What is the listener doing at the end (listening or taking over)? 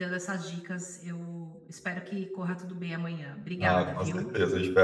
taking over